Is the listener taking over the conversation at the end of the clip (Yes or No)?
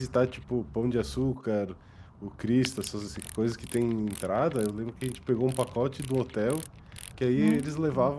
No